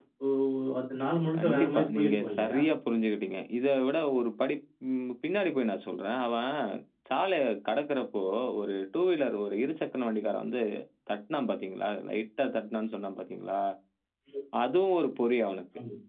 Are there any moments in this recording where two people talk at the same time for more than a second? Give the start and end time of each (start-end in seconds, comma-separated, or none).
1.4-2.6